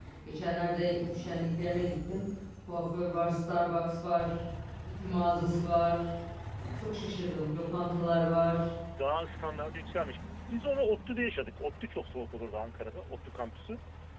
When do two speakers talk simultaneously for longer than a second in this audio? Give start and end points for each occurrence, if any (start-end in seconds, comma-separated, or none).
none